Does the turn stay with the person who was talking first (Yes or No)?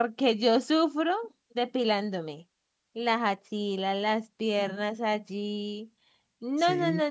Yes